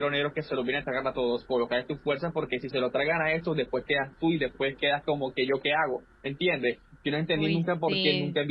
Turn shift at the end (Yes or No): No